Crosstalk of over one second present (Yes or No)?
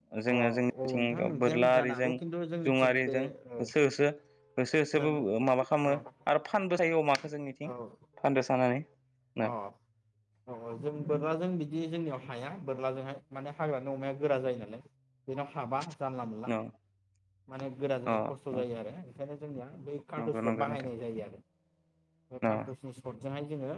Yes